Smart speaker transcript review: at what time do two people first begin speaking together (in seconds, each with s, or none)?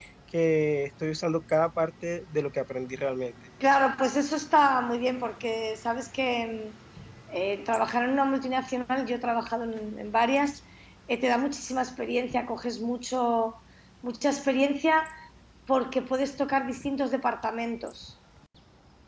none